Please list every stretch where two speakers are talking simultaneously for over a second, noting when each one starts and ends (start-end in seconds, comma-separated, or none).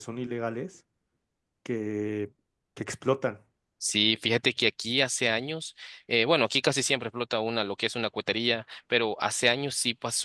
none